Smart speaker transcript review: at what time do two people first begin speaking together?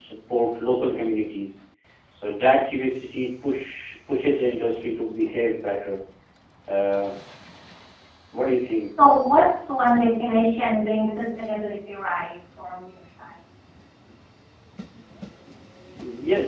none

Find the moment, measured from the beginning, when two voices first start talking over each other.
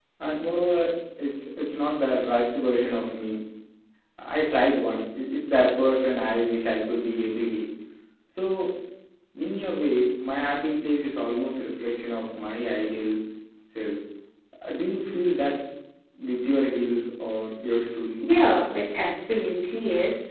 none

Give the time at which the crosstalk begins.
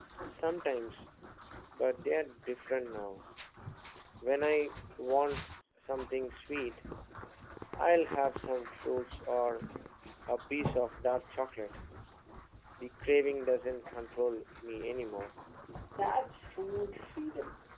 none

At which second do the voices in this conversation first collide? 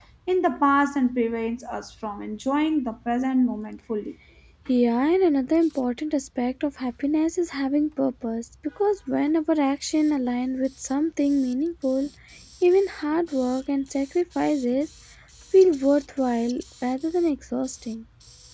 none

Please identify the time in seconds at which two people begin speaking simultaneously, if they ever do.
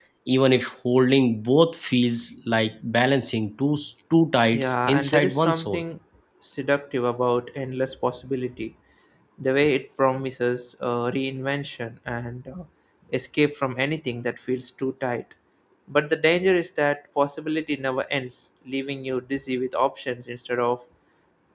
4.5 s

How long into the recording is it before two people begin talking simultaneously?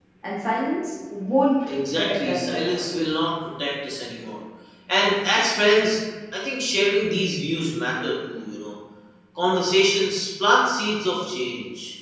1.6 s

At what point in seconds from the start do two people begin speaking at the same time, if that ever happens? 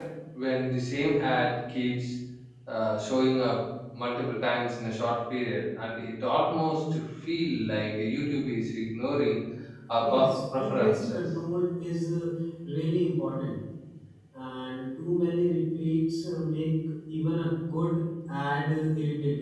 10.0 s

